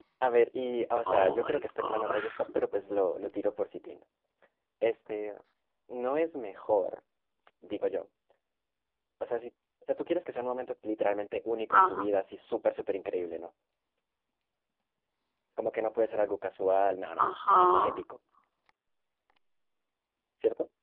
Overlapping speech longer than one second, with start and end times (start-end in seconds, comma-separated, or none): 1.1-2.3